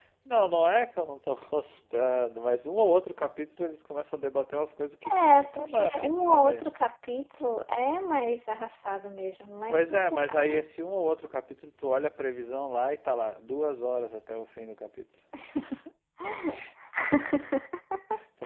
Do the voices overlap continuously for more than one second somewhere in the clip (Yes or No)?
Yes